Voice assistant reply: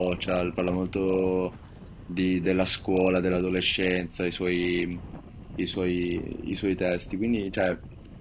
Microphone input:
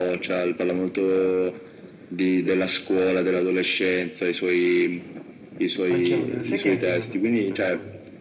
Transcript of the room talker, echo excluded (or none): Anche a me. Lo sai che è anche il mio preferito di lui?